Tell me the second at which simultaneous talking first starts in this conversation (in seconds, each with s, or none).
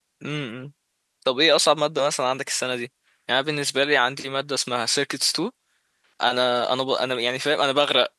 none